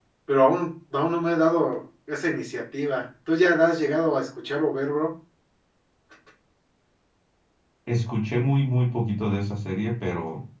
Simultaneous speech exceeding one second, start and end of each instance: none

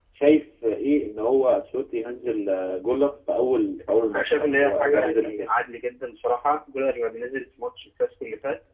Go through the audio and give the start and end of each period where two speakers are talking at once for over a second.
4.1-5.5

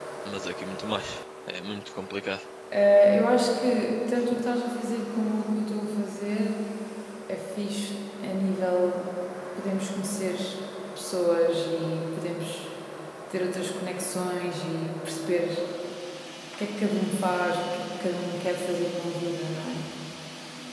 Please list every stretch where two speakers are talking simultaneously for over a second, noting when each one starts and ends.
none

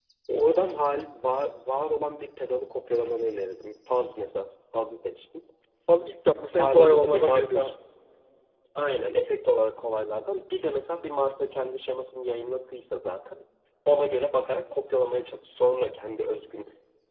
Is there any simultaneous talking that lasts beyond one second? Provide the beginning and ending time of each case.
6.5-7.7

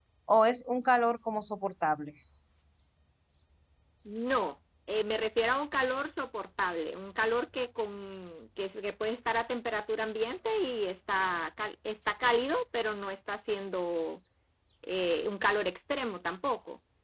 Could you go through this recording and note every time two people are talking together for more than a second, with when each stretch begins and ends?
none

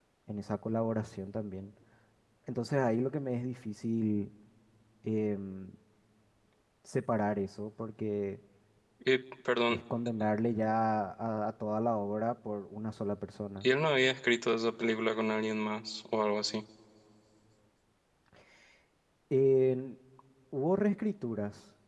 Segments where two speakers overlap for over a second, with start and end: none

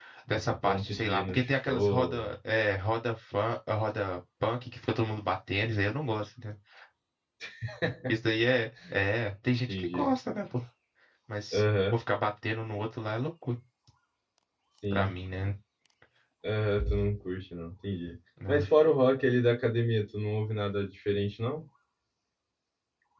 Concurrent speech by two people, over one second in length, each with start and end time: 0.6-2.3

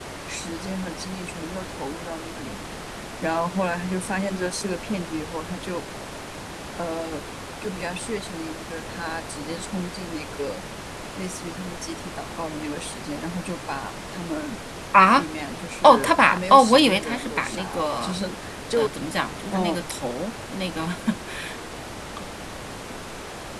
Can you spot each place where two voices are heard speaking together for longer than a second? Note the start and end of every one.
15.8-18.2

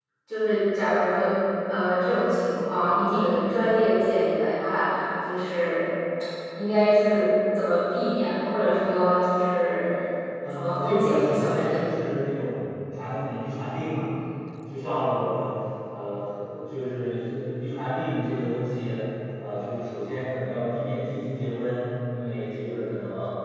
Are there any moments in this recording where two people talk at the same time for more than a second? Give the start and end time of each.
10.5-11.9

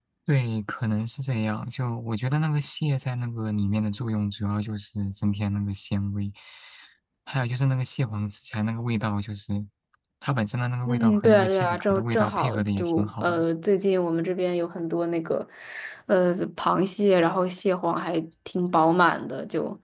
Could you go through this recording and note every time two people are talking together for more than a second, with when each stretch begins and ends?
10.9-13.4

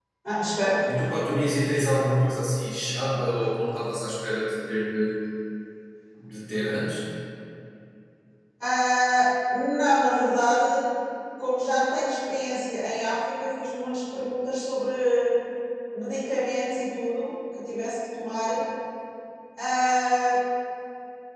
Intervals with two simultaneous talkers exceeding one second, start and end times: none

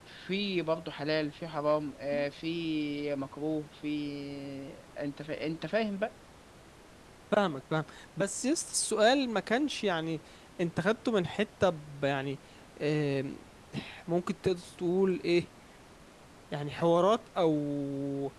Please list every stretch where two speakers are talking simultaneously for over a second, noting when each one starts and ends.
none

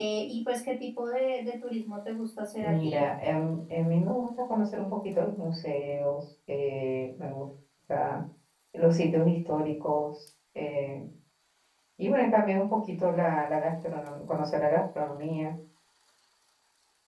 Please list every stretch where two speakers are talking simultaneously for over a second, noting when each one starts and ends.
none

